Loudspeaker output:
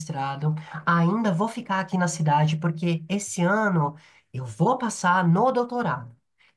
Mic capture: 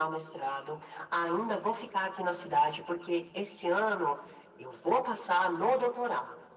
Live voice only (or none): none